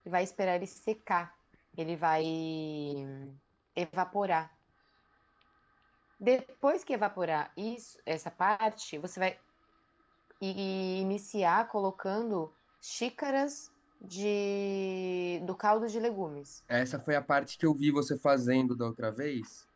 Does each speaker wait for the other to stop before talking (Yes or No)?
Yes